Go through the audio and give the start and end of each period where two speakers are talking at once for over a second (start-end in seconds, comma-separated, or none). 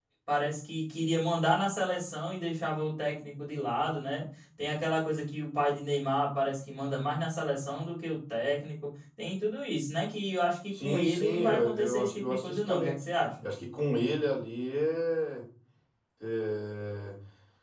10.8-12.9